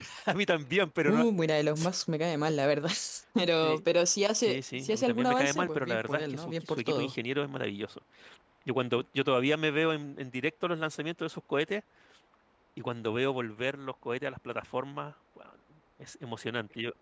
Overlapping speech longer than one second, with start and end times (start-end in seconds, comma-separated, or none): 4.4-7.1